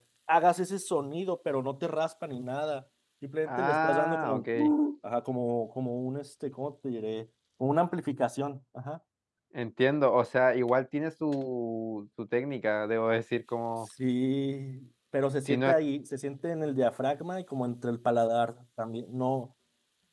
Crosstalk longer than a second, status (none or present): present